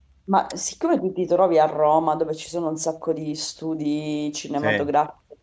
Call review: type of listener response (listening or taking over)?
listening